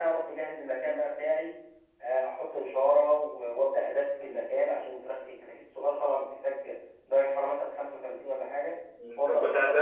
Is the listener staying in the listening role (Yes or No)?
No